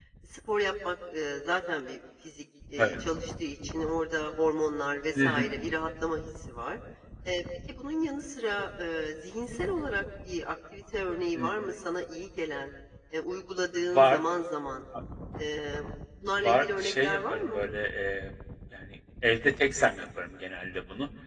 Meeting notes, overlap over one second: present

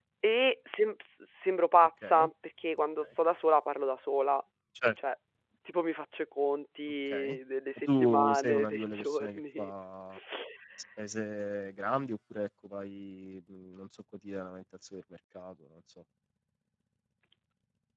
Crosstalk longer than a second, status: present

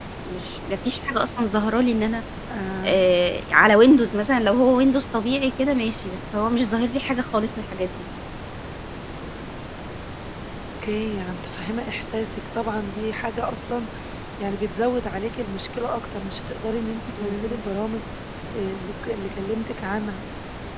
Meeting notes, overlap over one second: none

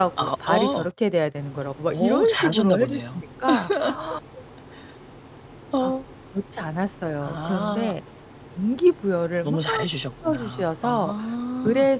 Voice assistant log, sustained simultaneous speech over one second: present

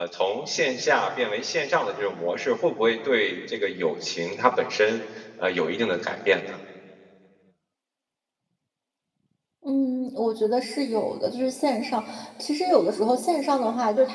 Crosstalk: none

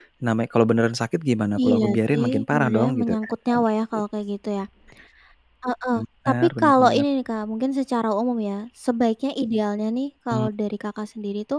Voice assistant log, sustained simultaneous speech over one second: present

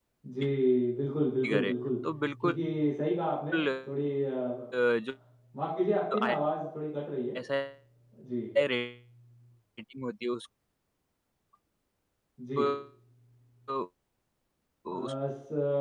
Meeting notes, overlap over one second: none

